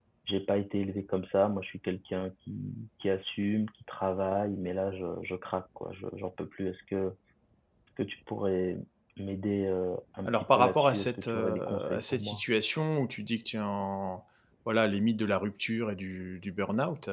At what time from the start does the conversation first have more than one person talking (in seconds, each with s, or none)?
10.2 s